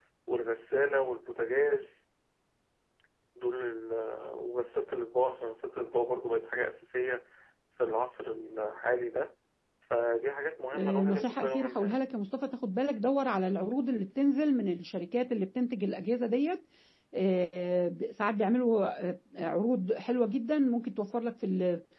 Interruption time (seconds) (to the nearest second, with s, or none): 11 s